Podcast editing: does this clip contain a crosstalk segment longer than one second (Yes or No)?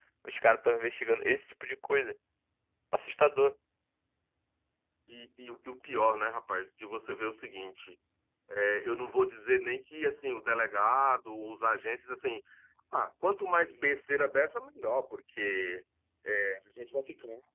No